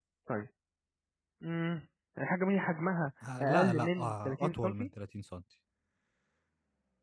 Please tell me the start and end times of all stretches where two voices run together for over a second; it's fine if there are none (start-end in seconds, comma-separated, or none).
3.4-4.9